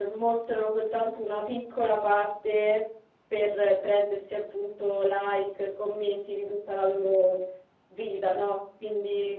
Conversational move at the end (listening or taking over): listening